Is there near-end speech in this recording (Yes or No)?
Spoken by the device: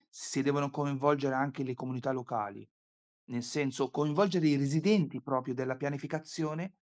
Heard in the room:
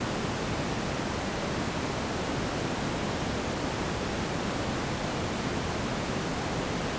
No